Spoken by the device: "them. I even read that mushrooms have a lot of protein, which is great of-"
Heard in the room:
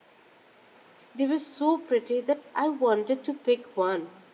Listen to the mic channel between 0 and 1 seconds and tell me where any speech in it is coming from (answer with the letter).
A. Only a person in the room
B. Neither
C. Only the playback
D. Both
B